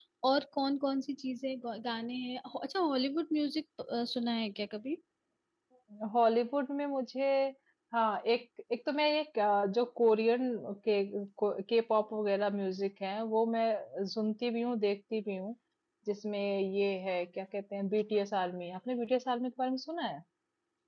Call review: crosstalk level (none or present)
none